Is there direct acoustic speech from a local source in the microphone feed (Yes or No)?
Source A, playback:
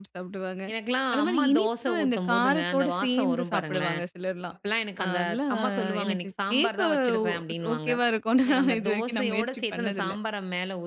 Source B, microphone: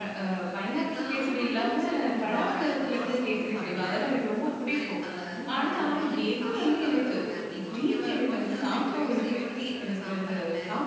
Yes